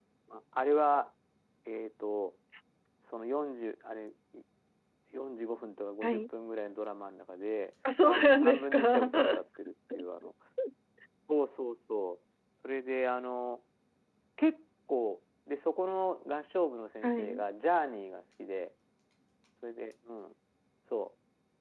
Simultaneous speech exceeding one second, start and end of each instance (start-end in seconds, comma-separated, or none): 8.0-9.4